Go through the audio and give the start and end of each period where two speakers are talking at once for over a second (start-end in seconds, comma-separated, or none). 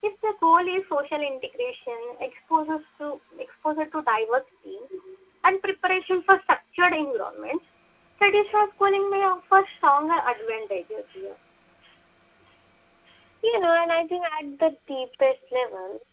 none